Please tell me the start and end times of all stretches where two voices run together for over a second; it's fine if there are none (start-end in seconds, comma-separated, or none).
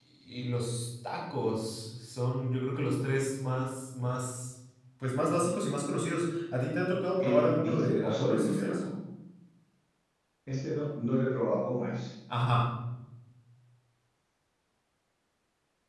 7.2-8.8